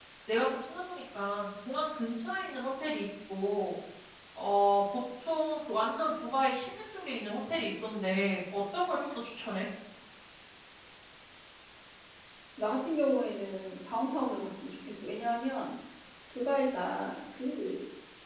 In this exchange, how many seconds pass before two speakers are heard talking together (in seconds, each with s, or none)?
none